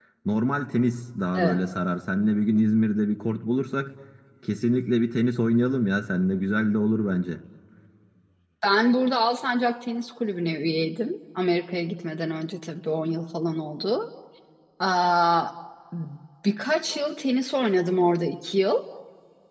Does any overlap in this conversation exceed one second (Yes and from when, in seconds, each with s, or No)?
No